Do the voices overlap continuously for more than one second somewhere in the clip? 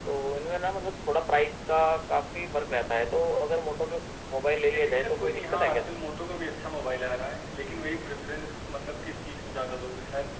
Yes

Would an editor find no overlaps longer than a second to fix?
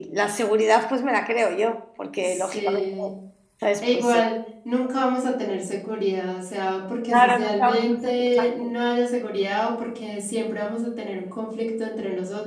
No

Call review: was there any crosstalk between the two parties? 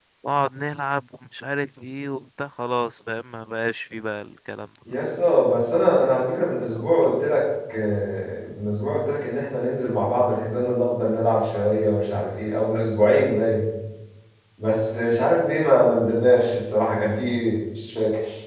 No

